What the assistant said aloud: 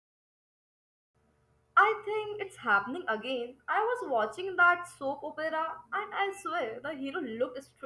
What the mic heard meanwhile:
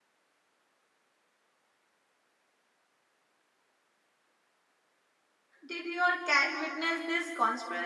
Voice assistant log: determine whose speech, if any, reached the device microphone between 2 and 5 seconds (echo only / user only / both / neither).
neither